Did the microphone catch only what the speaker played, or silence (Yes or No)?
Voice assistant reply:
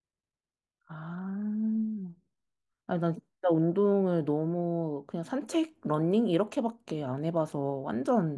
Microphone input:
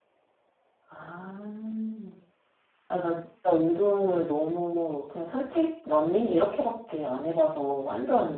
Yes